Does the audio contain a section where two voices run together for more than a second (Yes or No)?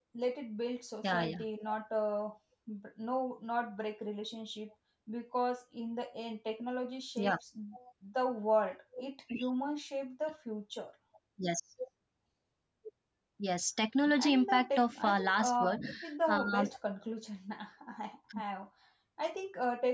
Yes